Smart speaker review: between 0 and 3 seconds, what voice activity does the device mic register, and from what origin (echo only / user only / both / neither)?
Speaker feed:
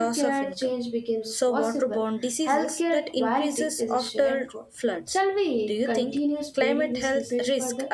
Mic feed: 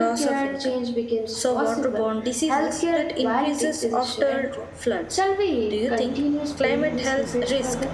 echo only